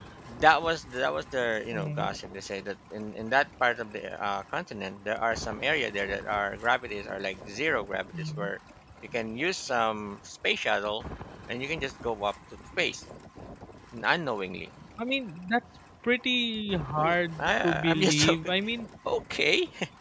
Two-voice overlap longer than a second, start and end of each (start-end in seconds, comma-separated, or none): 17.0-18.4